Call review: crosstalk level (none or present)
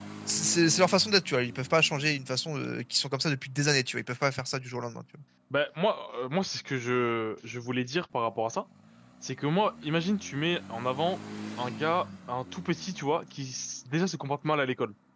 none